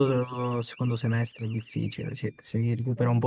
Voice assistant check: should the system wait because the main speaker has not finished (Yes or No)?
Yes